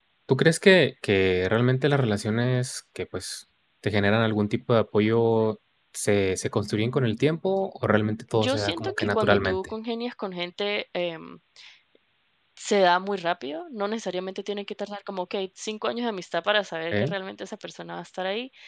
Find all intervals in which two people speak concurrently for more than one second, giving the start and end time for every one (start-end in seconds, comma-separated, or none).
8.4-9.6